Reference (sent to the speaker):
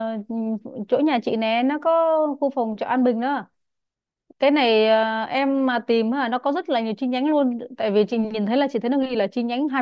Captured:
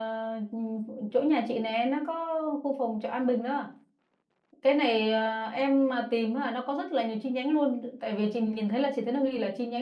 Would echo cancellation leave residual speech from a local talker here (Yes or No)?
No